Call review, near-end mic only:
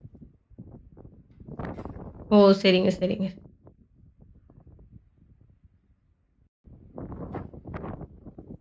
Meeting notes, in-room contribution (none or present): present